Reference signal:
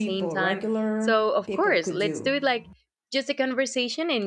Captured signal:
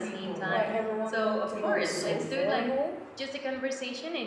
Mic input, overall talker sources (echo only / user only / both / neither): both